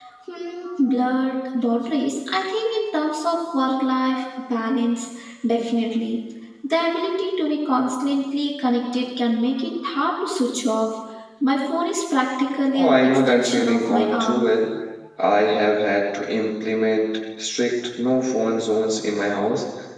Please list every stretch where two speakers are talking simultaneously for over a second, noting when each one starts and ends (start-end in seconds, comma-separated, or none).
12.7-14.5